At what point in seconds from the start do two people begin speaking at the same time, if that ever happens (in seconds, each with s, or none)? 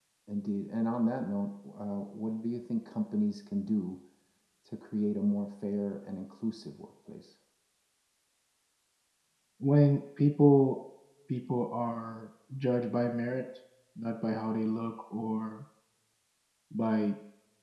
none